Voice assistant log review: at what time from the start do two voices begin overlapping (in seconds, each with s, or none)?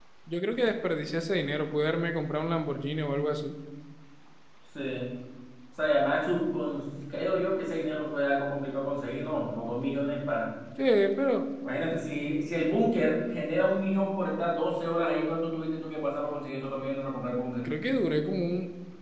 none